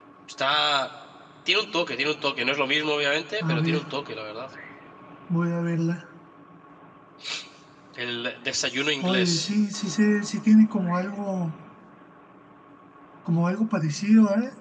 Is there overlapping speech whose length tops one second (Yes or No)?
No